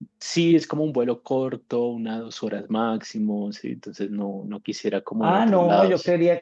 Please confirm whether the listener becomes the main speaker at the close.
Yes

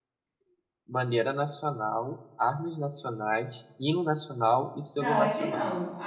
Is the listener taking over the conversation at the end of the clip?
Yes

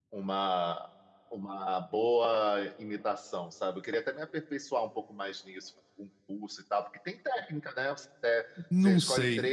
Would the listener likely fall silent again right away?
Yes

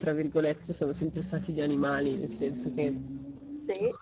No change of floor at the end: Yes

